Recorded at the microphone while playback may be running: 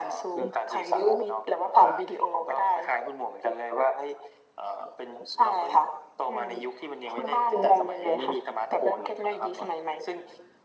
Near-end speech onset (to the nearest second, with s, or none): none